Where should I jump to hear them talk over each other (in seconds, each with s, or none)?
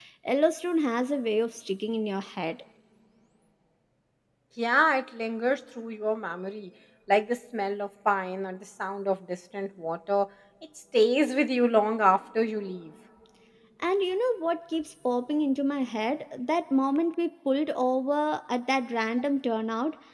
none